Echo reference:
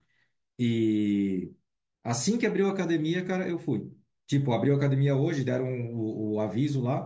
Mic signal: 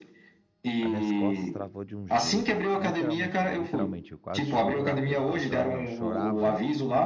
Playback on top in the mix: Yes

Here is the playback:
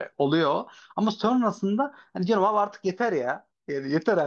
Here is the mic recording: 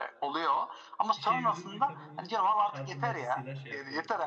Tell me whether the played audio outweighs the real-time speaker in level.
Yes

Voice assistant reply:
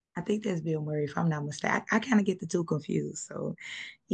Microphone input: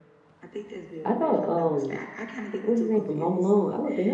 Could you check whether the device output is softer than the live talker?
Yes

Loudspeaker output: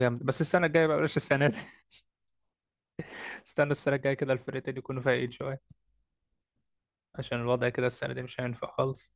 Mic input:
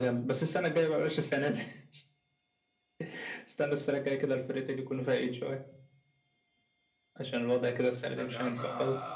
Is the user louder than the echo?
No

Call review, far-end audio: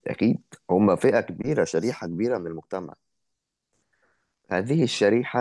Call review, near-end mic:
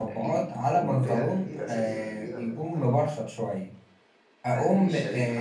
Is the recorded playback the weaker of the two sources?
Yes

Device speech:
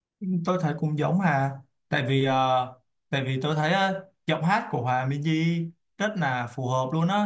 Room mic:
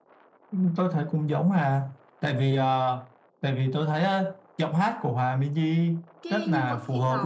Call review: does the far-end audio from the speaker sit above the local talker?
Yes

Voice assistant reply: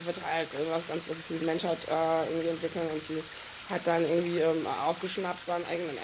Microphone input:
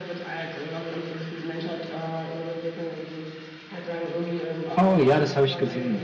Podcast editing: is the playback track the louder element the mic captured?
No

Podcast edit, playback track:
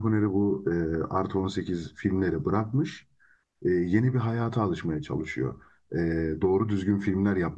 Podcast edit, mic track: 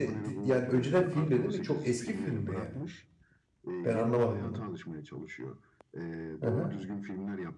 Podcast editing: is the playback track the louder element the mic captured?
No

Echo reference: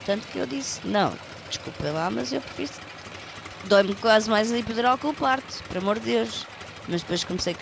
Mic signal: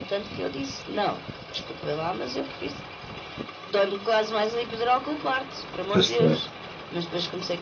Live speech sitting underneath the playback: No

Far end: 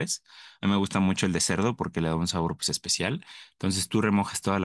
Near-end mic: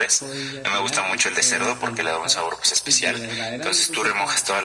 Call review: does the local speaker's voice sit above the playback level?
No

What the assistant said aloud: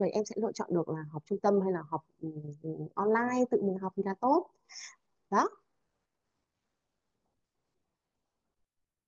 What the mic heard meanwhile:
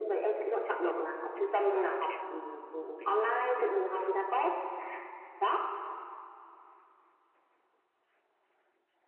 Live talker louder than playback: No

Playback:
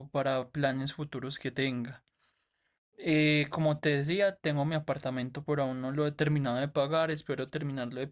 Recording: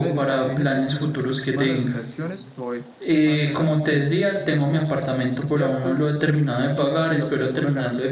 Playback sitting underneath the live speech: No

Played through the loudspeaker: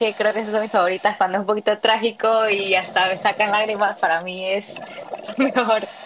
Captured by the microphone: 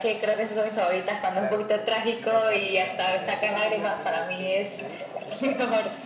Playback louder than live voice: Yes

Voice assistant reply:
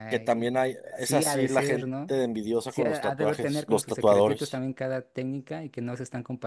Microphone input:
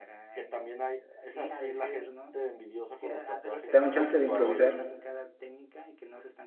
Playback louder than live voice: No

